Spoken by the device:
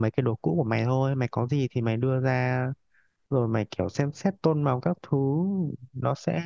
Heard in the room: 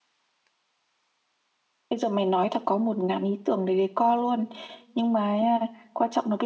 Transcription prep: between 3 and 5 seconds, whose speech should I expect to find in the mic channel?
user only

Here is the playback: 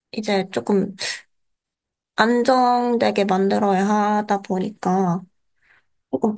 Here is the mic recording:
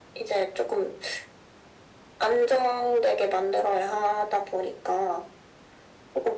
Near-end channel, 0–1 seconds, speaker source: echo only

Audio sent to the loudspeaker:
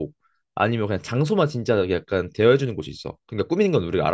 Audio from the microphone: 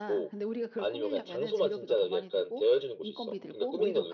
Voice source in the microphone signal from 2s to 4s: both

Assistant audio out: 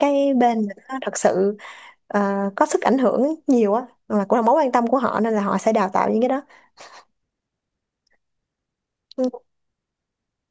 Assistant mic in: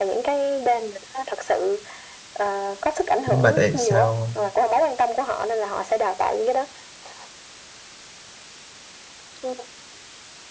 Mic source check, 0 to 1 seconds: echo only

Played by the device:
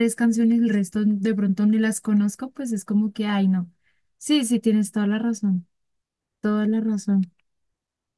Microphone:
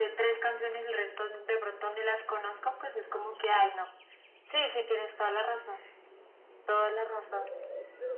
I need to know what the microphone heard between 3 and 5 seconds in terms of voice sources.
echo only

